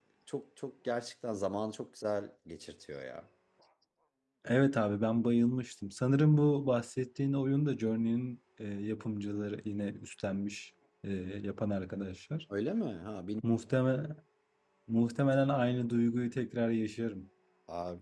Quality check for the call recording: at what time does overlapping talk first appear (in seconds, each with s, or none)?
none